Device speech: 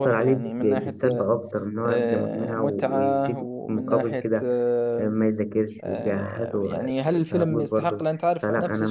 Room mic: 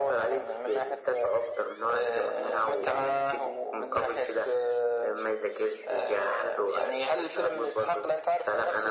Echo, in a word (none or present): present